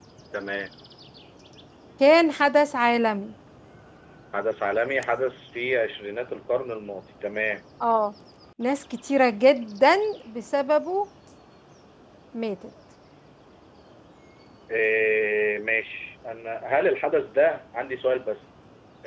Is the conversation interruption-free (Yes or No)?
Yes